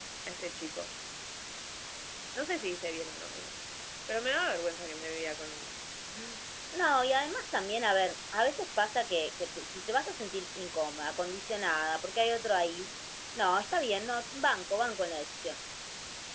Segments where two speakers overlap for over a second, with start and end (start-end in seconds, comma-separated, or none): none